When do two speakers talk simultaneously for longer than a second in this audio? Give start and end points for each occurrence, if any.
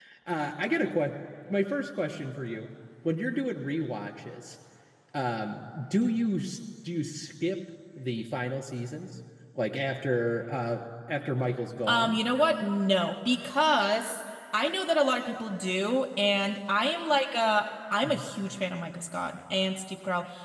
none

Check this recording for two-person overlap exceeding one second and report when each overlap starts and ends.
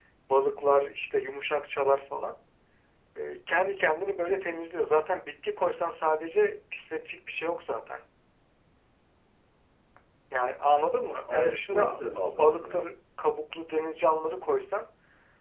11.3-12.8

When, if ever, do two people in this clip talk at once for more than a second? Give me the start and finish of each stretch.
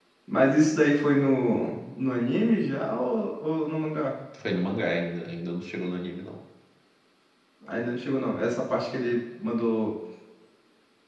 none

